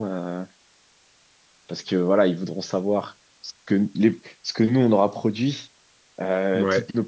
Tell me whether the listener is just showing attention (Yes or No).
Yes